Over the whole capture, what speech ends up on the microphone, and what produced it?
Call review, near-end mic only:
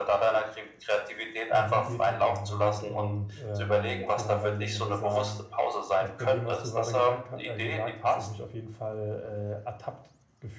both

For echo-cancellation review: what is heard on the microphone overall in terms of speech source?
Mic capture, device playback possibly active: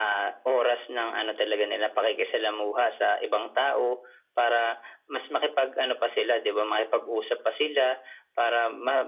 echo only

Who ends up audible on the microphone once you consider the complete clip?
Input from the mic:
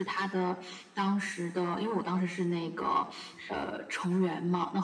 both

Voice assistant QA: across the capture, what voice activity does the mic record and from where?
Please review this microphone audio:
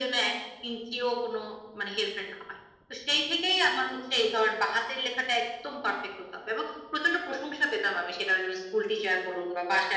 echo only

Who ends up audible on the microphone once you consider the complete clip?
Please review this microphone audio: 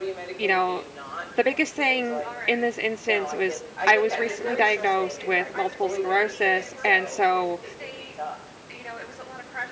both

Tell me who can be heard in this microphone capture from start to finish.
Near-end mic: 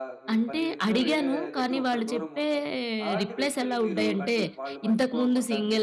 both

